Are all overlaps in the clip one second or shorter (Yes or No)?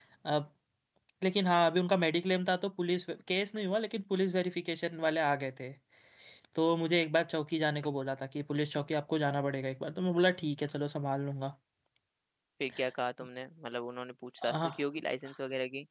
Yes